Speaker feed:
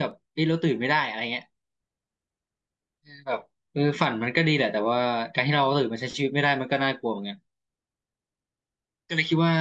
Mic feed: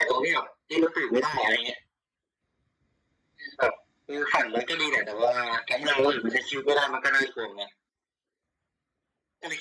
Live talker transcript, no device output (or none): none